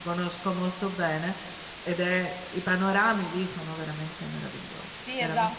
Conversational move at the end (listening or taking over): taking over